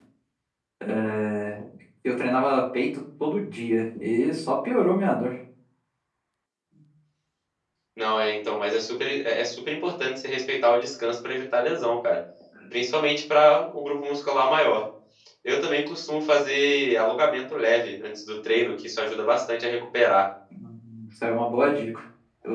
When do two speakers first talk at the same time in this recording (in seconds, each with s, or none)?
none